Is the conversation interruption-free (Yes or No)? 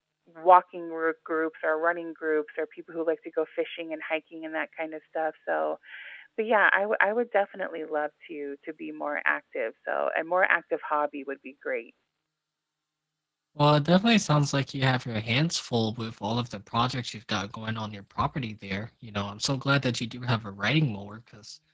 Yes